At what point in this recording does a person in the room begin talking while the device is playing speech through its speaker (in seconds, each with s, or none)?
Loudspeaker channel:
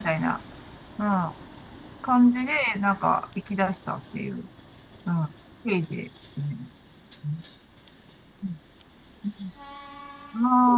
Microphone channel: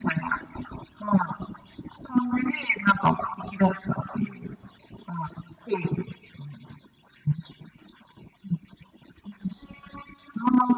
none